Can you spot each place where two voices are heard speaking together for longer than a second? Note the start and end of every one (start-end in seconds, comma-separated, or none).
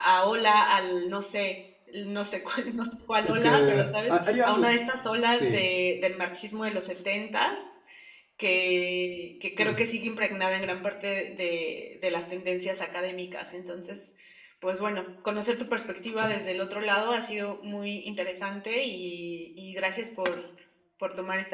3.2-4.7